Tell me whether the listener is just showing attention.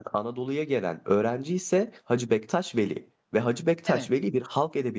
Yes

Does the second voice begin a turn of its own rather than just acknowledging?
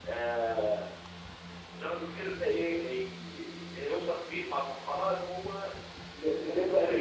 Yes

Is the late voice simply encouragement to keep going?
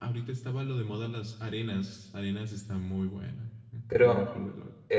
No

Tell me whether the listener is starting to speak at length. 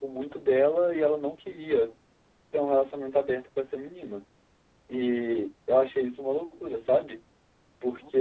No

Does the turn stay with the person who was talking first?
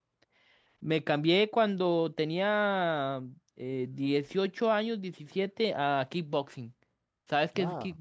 No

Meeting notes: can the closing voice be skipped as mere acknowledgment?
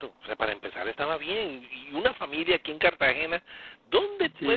Yes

